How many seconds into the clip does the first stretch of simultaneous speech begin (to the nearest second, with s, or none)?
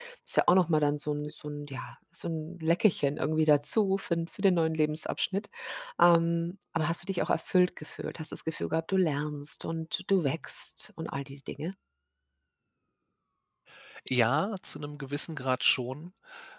none